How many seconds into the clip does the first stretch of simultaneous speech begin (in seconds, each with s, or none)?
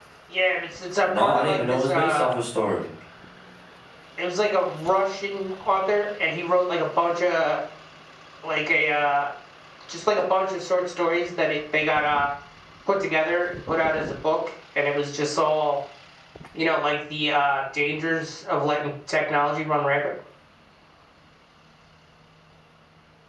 1.0 s